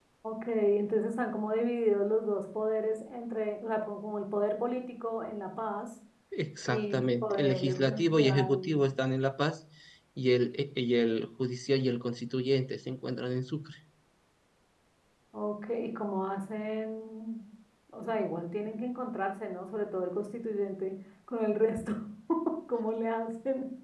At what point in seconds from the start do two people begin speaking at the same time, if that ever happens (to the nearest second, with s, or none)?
7 s